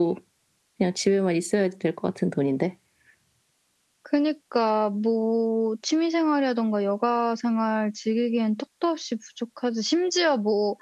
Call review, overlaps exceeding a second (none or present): none